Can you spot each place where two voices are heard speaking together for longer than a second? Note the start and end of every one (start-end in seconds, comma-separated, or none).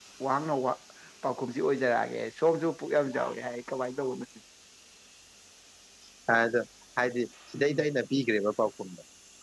none